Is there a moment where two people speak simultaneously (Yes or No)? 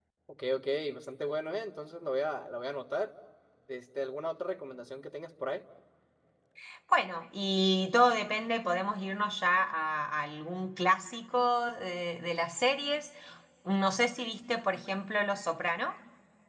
No